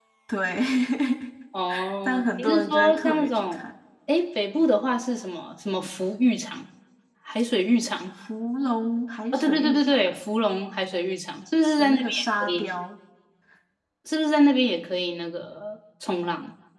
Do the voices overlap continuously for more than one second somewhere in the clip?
Yes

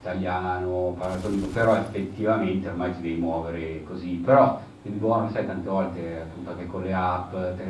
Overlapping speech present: No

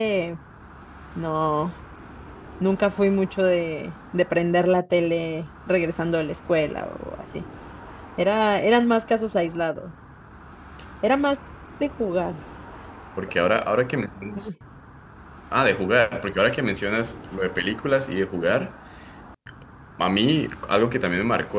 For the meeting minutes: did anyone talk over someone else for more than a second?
No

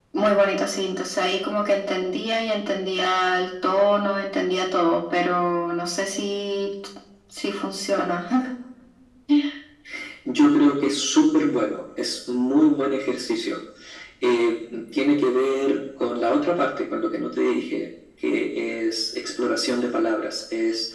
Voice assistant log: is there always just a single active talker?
Yes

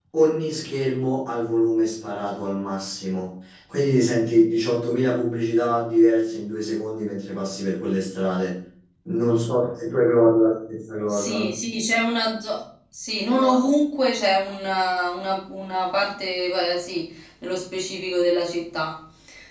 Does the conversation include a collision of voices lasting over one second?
No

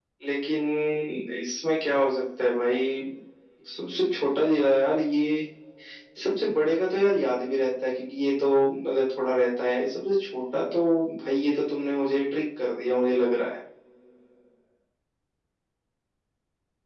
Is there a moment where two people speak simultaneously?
No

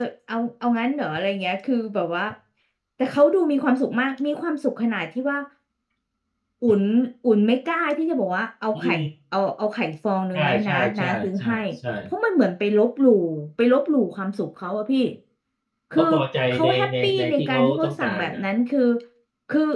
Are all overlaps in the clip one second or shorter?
No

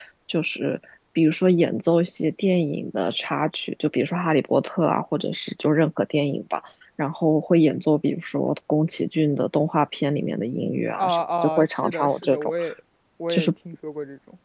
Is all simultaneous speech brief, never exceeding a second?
No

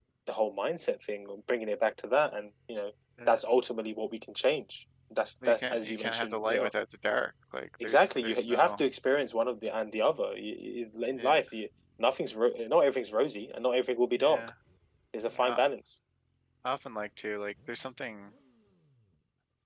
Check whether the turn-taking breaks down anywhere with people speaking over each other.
Yes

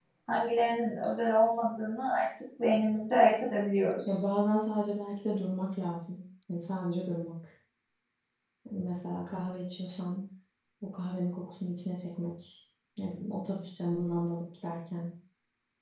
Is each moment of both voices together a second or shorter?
Yes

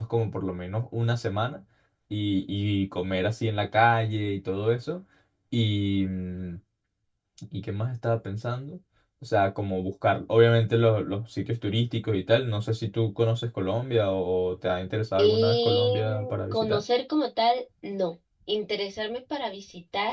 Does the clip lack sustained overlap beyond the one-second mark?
No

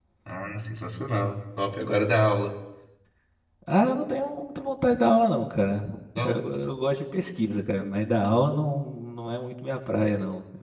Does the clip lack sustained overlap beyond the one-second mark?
Yes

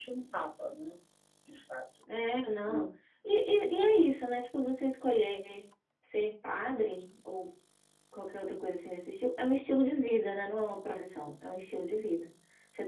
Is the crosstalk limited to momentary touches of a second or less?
Yes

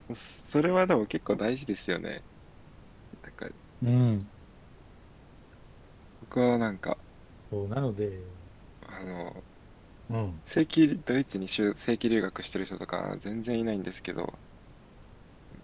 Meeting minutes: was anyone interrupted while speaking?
No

